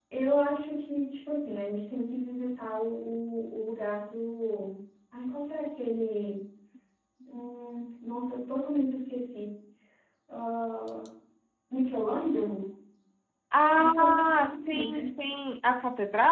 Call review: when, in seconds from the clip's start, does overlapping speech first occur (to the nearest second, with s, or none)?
14 s